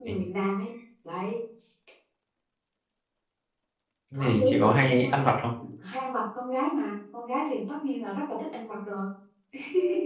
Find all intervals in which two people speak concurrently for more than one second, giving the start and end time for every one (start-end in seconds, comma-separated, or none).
4.1-5.3